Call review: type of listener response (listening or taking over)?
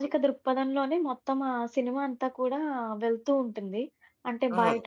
listening